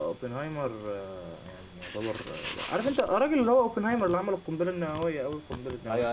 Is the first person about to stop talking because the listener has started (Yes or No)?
Yes